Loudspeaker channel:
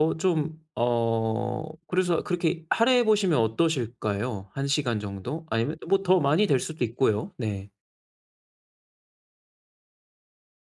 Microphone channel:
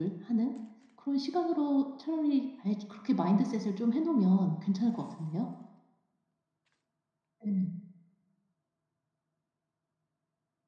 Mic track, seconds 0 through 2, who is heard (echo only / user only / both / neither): user only